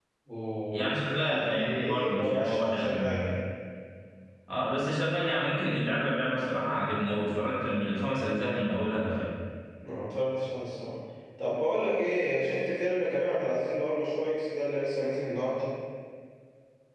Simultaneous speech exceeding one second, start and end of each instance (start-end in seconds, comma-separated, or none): 0.7-3.2